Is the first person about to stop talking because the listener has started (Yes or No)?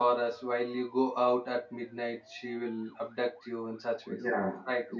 Yes